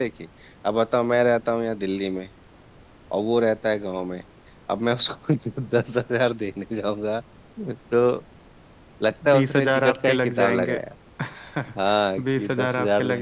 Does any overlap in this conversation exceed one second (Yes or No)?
Yes